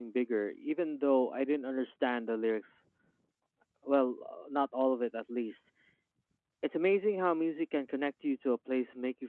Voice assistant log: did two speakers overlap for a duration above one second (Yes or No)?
No